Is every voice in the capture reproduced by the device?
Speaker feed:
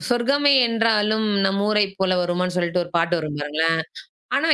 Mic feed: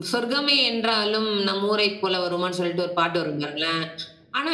Yes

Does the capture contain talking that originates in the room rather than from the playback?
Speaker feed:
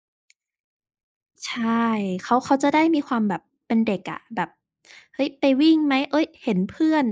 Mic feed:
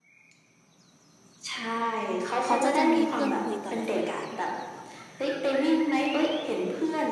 Yes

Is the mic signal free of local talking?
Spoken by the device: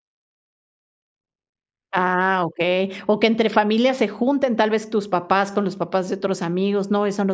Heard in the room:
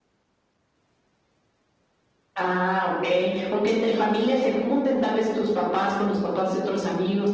Yes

